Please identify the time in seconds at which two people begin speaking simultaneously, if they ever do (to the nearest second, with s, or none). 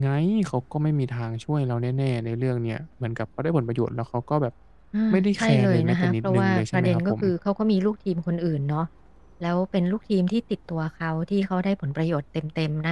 5 s